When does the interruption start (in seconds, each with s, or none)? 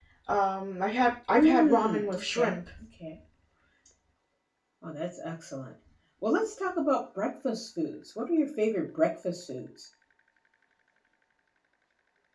1.4 s